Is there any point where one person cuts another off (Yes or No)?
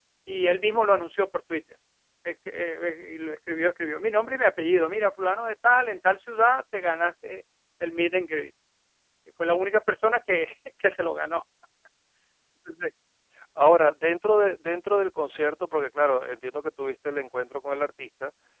No